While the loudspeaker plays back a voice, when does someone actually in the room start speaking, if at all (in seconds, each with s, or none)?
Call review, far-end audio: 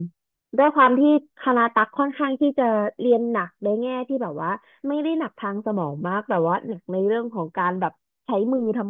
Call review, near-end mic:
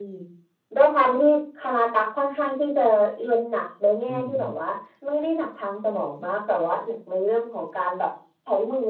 4.1 s